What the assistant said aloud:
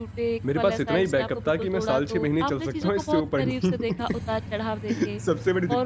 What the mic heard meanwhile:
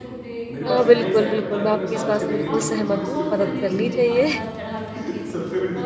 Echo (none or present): present